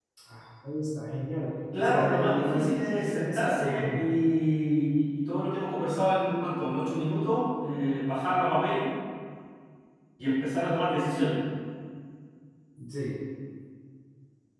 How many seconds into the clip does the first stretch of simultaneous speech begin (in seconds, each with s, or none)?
1.7 s